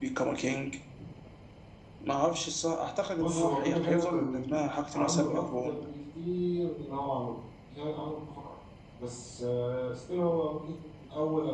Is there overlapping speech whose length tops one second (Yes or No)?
Yes